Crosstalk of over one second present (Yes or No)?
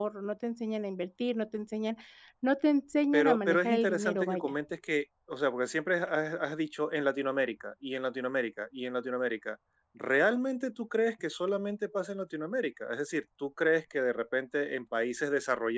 Yes